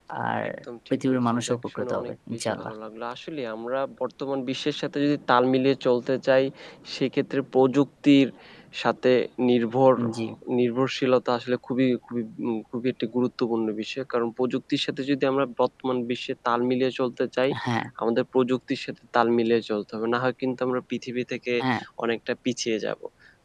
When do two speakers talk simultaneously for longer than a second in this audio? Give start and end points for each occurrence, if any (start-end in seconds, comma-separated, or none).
0.9-2.7